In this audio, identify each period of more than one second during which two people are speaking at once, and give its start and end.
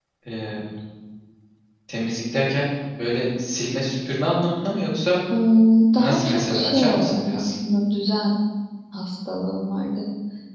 6.0-7.5

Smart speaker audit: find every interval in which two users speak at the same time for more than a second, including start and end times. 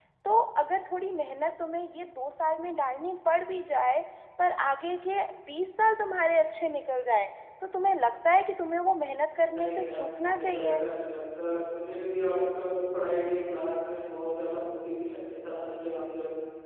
9.4-10.8

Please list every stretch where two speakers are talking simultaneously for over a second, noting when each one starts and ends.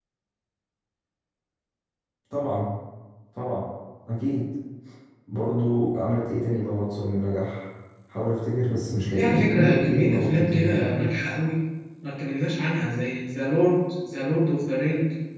9.1-11.1

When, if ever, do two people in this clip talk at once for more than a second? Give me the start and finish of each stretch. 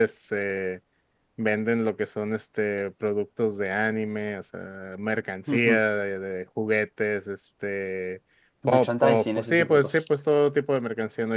8.7-10.0

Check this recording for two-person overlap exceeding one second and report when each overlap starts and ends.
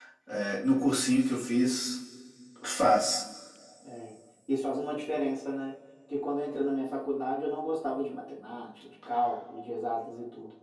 none

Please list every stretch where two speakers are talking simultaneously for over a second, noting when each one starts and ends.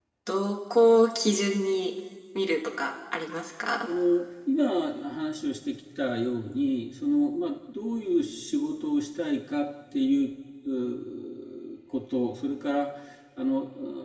none

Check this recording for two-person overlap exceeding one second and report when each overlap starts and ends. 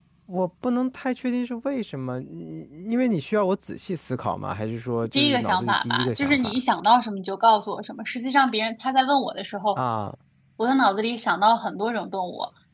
5.1-6.6

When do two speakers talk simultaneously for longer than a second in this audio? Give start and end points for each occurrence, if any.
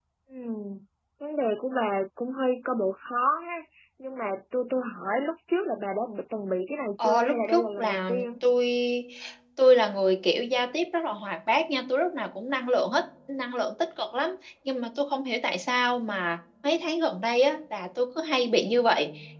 7.0-8.2

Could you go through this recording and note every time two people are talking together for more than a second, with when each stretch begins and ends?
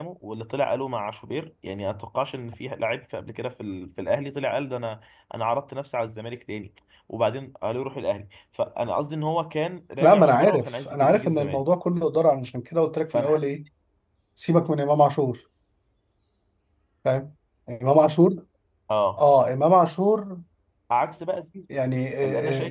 10.0-11.6

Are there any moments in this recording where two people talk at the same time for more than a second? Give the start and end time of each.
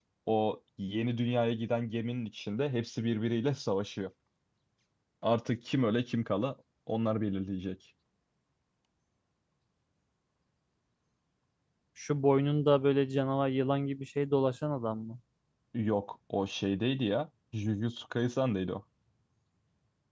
none

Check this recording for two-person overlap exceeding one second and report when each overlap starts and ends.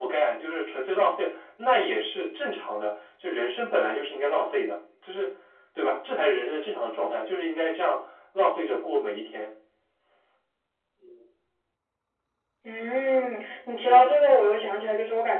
none

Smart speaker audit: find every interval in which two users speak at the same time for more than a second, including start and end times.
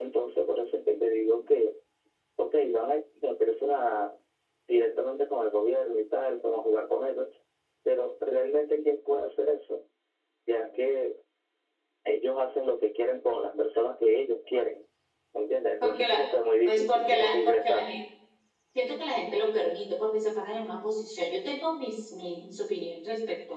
16.6-17.9

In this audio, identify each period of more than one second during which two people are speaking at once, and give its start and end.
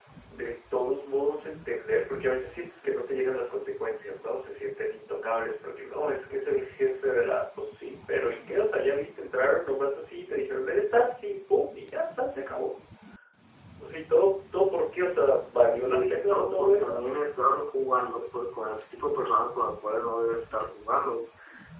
15.6-17.0

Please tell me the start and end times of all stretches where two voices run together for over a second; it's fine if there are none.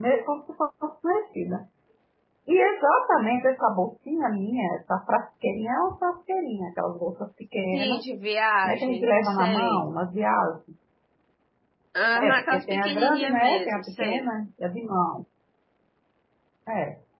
8.6-9.9, 12.2-14.3

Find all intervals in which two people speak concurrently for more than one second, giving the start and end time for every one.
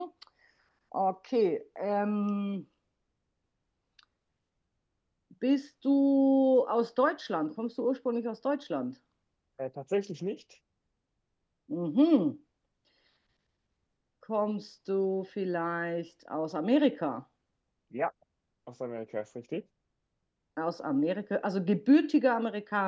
none

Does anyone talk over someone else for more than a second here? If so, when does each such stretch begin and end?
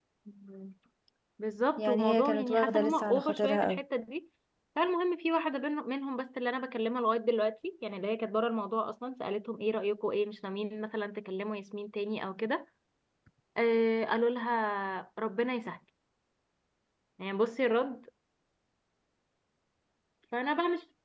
1.8-3.8

